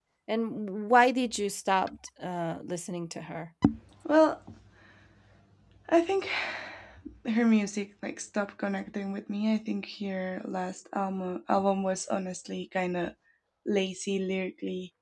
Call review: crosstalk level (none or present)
none